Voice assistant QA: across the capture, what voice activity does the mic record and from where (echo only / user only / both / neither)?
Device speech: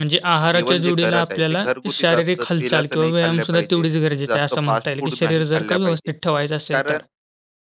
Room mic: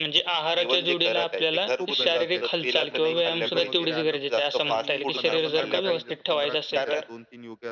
both